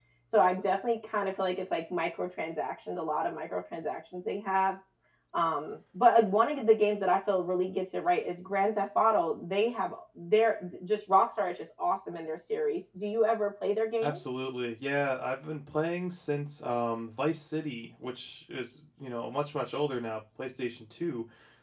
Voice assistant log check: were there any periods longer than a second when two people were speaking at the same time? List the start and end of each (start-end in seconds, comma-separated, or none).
none